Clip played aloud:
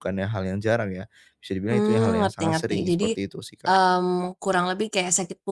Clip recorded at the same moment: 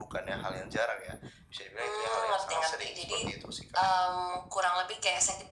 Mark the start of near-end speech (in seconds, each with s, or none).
none